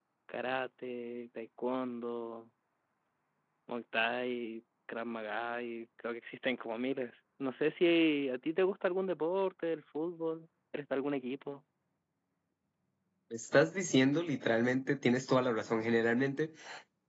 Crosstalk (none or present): none